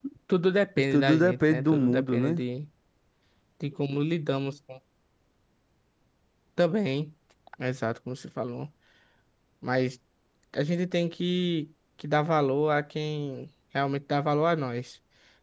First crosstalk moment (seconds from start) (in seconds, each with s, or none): 0.8 s